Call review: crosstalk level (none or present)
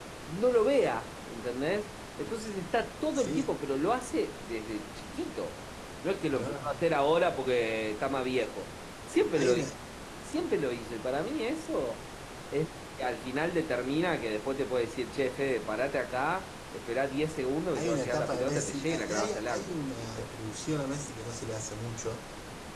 present